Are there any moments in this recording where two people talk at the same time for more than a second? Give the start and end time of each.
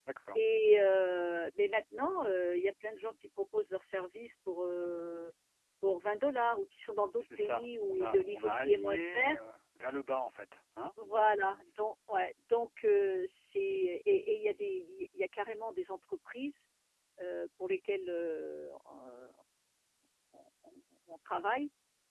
7.2-9.3

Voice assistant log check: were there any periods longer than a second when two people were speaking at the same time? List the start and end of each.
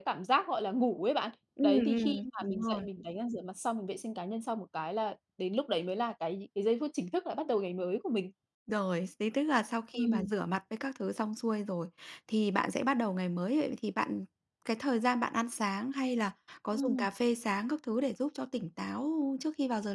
1.6-2.9

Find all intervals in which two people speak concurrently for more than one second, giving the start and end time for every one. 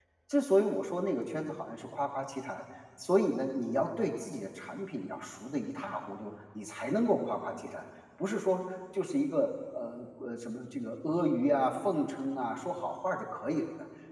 none

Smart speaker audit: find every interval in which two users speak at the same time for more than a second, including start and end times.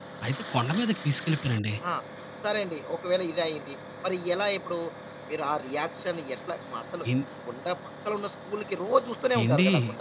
none

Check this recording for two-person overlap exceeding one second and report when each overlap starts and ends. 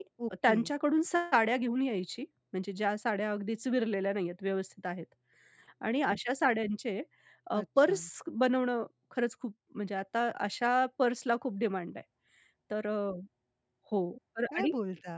none

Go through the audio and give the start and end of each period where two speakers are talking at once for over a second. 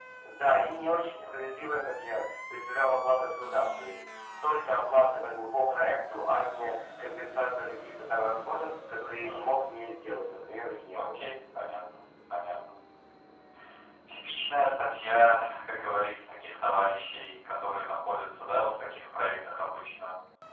none

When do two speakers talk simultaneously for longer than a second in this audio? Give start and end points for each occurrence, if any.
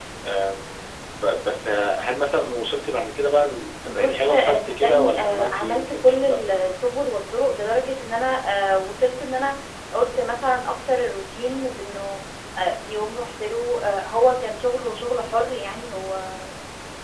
3.9-6.4

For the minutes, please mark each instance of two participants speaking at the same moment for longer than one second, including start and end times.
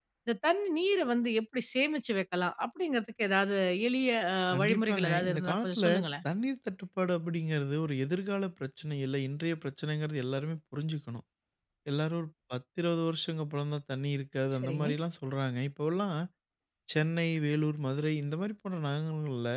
4.6-5.8

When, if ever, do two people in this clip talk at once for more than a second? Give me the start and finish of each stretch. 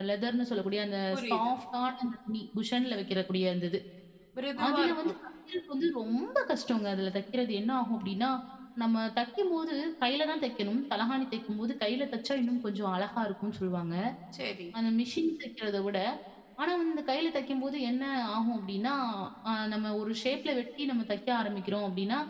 none

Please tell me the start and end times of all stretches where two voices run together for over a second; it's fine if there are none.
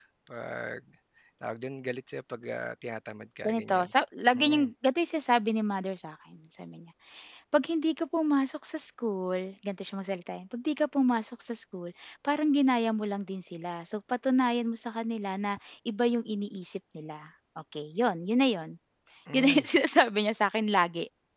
none

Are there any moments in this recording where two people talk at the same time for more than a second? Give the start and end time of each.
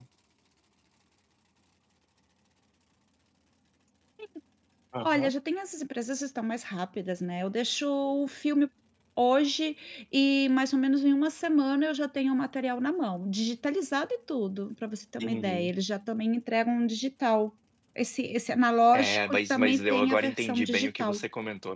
18.9-21.2

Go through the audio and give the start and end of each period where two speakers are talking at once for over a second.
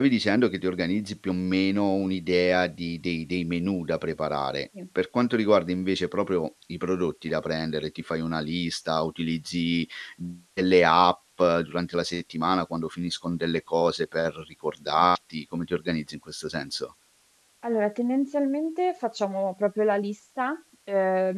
none

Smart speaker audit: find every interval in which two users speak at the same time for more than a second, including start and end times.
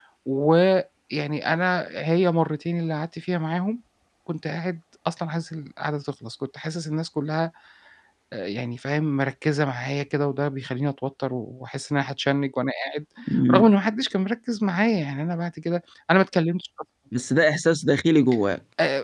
none

